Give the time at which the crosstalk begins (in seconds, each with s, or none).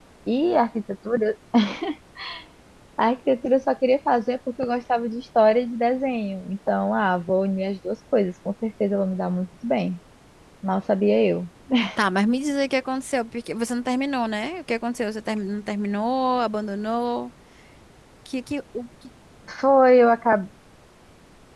none